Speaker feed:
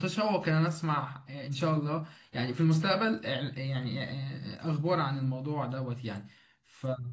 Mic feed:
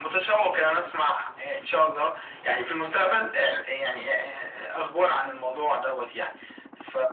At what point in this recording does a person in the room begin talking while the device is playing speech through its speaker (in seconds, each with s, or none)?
none